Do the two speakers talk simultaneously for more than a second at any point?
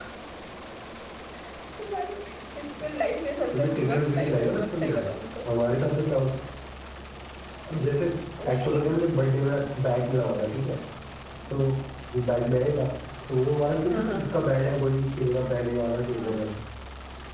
Yes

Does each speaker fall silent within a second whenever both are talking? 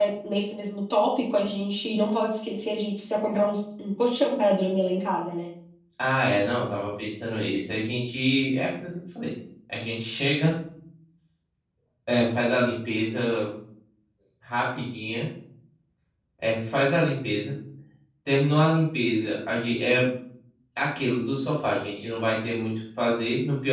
Yes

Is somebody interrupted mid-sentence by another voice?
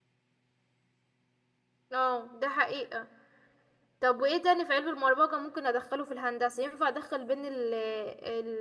No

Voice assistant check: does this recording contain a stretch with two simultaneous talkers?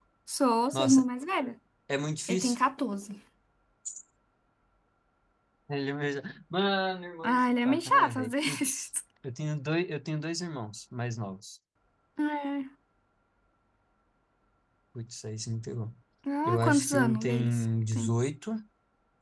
Yes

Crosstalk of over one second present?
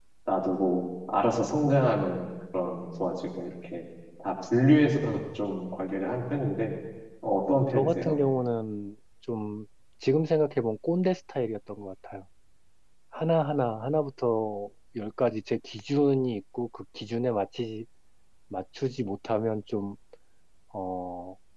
No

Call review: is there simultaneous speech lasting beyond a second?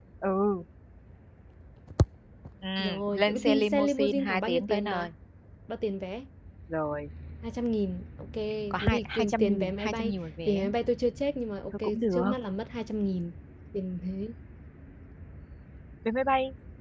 Yes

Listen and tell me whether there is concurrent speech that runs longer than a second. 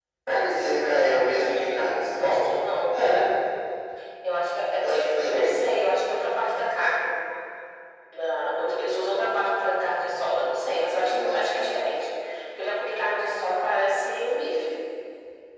Yes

